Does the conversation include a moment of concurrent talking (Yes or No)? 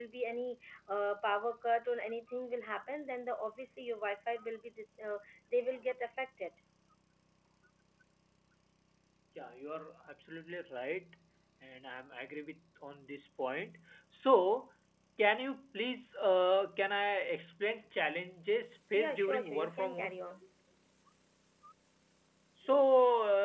Yes